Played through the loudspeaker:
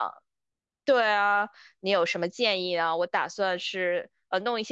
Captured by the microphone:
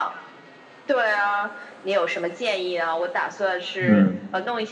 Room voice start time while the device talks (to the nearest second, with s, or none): 4 s